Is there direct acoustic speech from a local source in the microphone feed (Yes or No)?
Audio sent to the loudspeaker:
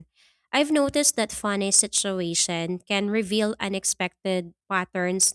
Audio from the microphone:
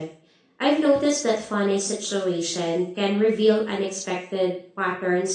No